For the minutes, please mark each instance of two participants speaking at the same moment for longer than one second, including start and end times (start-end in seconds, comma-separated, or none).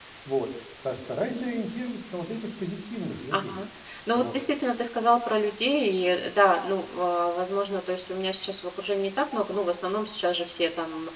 none